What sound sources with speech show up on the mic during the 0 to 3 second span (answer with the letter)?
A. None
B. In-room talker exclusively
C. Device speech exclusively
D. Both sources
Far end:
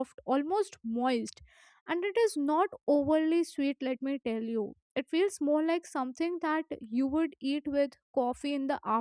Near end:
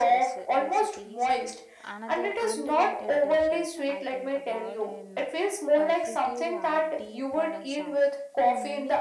D